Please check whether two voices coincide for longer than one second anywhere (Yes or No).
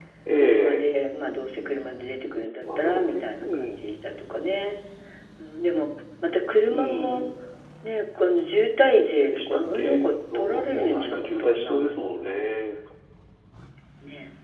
Yes